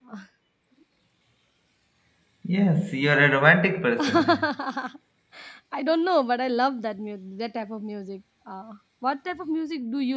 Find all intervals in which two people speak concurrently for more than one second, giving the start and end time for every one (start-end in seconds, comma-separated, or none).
none